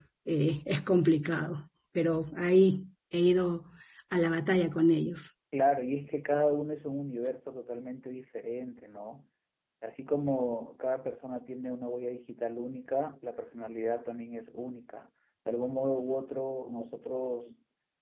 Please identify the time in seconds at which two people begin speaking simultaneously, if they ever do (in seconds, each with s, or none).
none